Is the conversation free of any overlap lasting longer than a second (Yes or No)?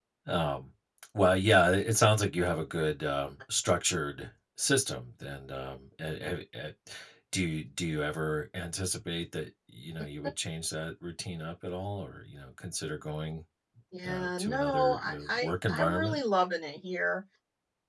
No